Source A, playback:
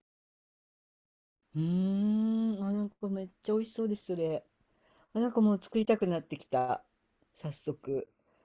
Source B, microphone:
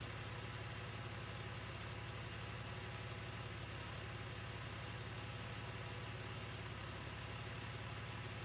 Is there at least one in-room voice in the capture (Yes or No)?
No